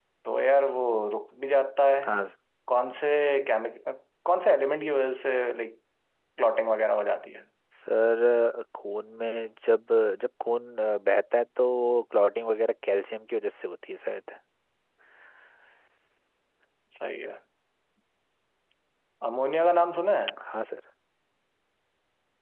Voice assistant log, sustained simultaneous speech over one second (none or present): none